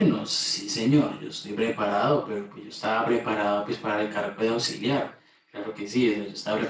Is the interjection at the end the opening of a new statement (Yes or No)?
Yes